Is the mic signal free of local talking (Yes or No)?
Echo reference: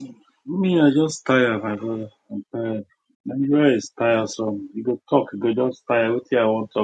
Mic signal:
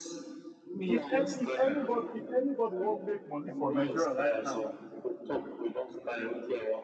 No